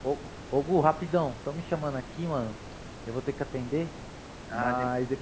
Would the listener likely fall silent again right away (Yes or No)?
Yes